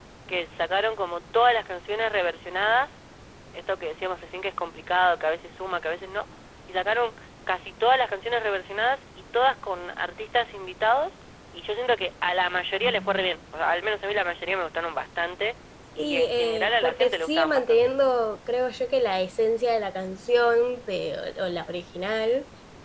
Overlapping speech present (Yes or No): Yes